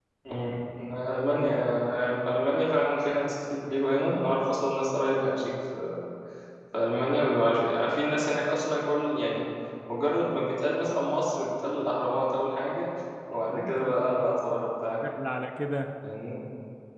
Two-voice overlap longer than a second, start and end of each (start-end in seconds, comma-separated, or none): 13.5-14.9